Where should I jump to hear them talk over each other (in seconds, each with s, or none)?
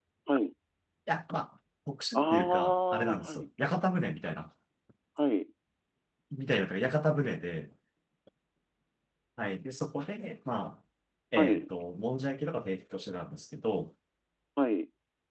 2.1 s